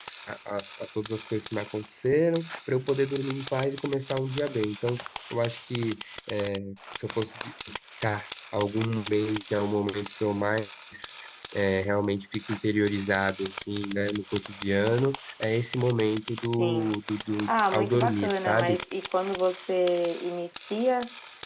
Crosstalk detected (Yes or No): Yes